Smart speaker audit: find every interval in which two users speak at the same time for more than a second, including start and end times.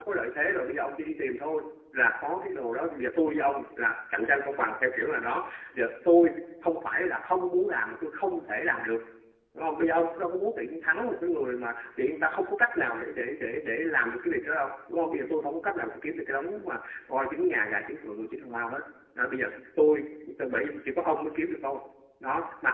none

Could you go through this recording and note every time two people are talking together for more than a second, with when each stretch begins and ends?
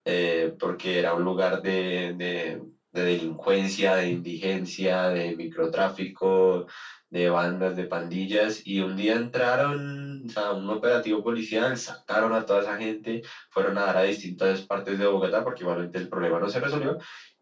none

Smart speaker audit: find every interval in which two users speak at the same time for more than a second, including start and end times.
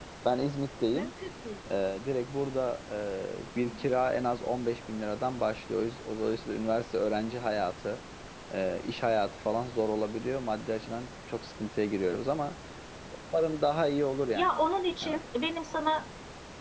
none

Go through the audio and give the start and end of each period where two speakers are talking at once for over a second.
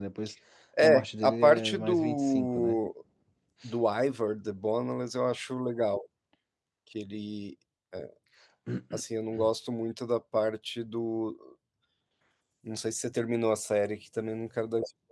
0.8-2.8

